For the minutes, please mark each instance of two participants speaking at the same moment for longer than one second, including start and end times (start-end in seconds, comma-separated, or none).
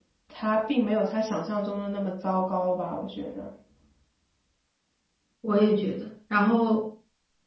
none